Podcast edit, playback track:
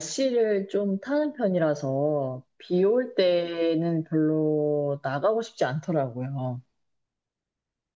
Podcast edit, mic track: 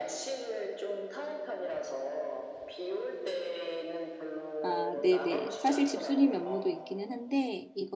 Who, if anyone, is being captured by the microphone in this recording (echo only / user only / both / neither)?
both